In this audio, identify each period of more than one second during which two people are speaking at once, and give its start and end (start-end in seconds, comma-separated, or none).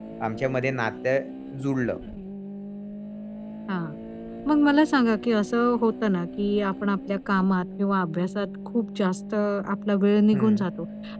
none